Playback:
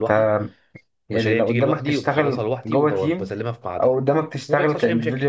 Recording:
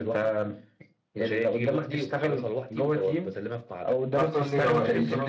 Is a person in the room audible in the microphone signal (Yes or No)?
Yes